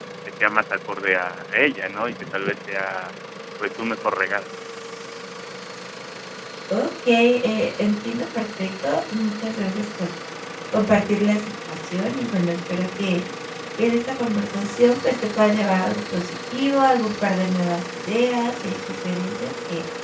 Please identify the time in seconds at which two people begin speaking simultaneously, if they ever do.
none

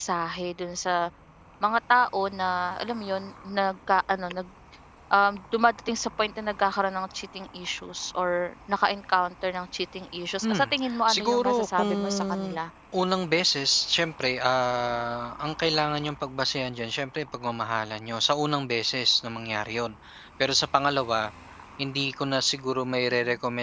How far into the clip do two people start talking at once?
10.4 s

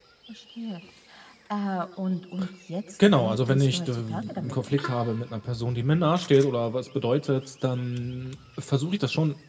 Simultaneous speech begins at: 3.1 s

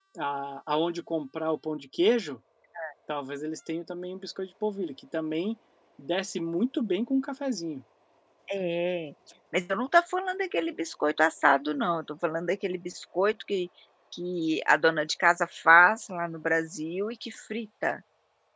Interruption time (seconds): none

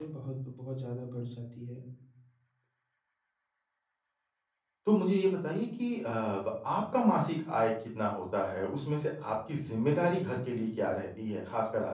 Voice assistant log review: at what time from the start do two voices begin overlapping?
none

